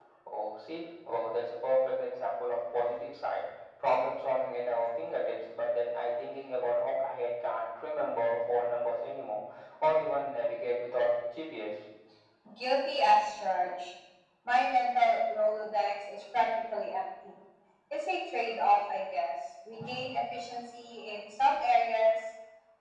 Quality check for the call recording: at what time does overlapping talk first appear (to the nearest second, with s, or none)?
none